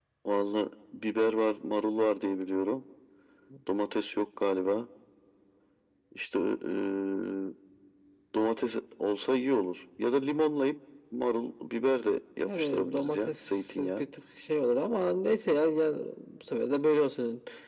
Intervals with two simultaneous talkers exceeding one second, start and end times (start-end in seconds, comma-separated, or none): 12.4-14.0